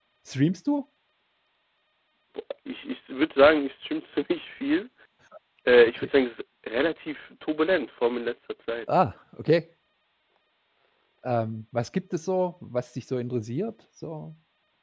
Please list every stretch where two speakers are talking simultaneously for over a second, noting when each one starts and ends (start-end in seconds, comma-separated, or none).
none